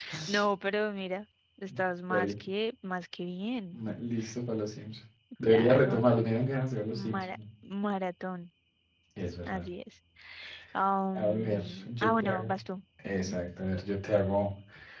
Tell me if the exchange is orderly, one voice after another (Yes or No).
No